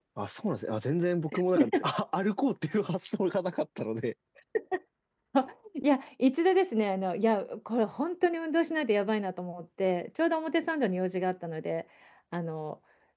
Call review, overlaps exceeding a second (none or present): none